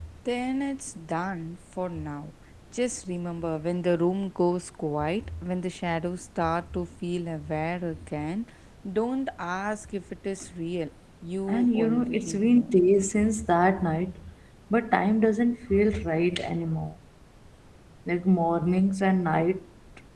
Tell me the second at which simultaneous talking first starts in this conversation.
11.5 s

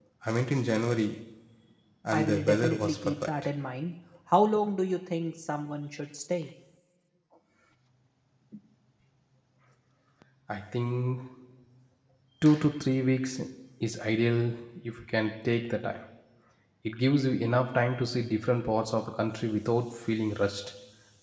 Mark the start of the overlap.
2.1 s

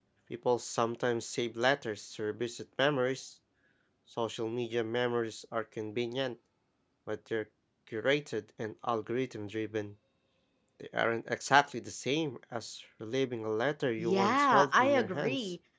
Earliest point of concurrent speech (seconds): 14.0 s

